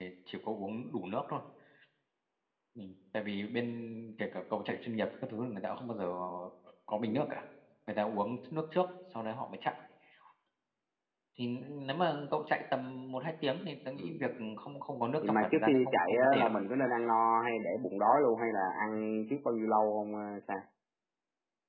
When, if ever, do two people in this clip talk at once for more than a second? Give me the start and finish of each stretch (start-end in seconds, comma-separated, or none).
15.2-16.5